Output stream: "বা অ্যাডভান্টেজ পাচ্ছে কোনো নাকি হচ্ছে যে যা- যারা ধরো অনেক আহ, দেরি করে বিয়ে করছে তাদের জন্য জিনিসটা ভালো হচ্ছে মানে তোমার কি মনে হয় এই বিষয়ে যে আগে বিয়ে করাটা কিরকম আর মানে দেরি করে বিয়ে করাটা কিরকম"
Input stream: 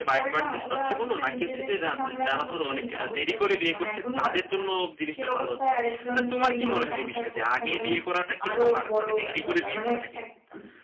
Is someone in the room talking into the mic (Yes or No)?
Yes